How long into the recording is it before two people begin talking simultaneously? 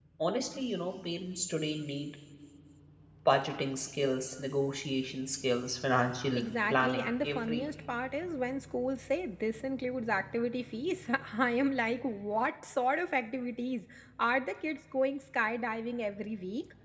6.3 s

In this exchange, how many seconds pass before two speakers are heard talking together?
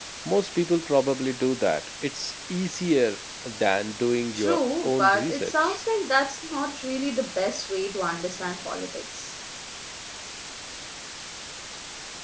4.4 s

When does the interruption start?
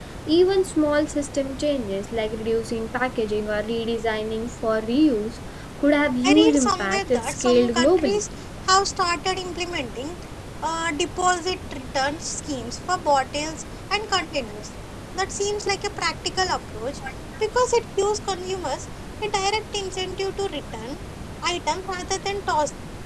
6.2 s

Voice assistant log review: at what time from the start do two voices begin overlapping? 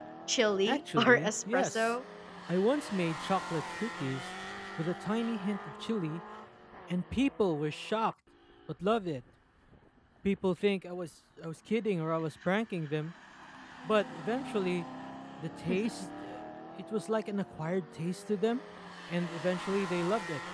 0.7 s

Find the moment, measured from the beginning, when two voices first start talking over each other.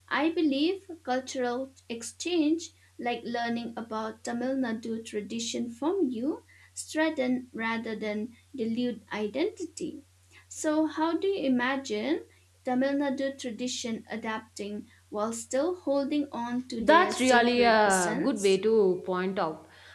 16.8 s

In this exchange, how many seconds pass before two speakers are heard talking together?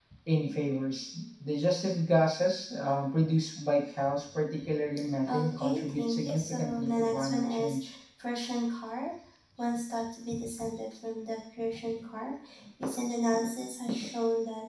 5.3 s

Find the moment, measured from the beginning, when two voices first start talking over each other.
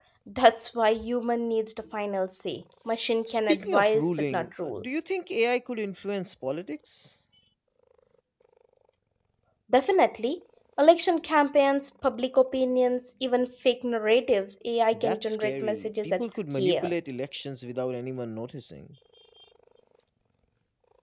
3.3 s

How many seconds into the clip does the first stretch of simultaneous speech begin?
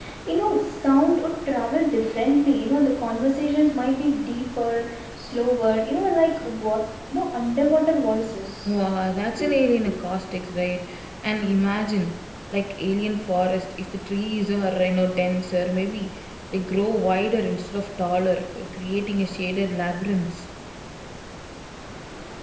none

